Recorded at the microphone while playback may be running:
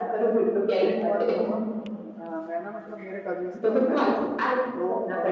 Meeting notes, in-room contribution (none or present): present